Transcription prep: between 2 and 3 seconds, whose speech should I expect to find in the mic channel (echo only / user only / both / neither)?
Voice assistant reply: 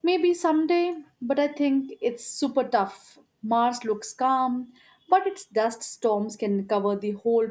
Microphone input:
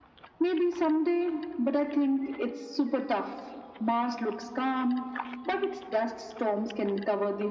echo only